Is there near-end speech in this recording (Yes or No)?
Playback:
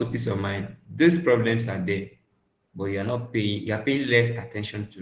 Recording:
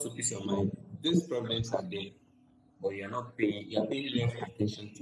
No